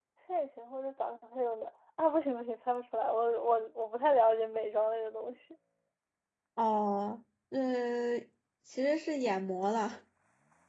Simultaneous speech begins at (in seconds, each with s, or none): none